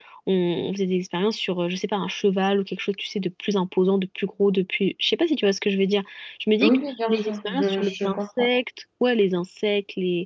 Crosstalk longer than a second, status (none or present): present